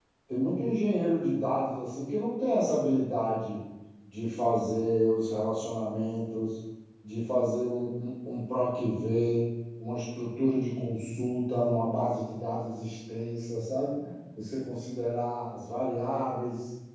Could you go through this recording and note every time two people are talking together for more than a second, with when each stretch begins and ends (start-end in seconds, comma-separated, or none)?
none